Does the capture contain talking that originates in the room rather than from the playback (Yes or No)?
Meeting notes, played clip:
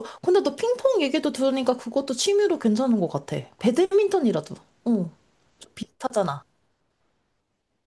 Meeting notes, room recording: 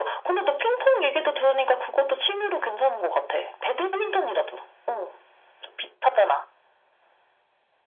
No